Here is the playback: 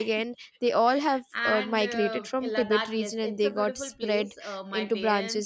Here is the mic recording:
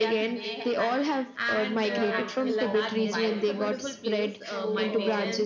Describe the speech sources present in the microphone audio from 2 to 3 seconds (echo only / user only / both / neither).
both